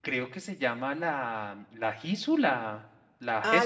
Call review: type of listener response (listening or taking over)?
taking over